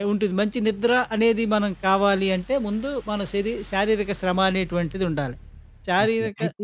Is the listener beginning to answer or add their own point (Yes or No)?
Yes